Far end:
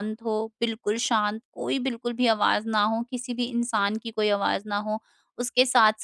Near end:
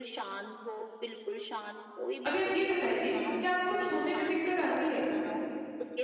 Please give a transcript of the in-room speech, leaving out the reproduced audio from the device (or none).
अभी आप ये बताइए कि आपको सोने में दिक्कत आती है?